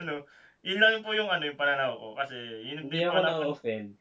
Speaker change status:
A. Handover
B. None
A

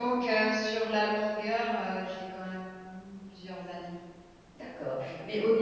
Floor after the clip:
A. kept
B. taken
B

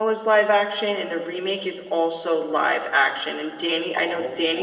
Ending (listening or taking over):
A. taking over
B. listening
B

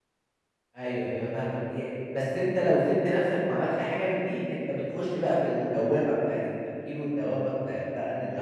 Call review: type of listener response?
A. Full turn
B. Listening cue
B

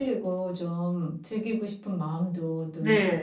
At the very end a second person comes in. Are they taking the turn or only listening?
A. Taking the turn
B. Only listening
A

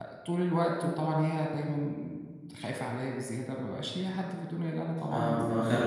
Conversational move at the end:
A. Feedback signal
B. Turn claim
B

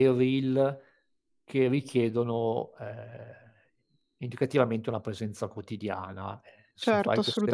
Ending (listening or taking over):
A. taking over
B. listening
A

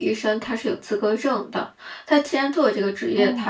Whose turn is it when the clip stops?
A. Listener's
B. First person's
B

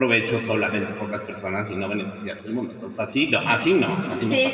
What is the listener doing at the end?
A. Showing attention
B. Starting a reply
B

